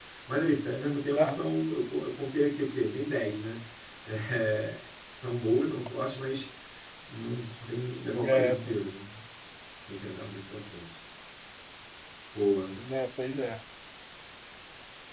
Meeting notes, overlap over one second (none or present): none